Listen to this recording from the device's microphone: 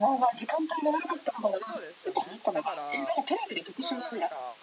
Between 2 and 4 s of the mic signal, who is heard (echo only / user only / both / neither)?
both